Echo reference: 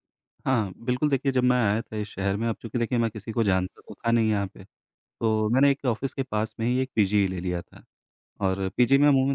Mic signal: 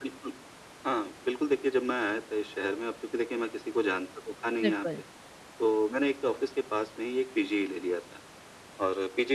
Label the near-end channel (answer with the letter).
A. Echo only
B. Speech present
B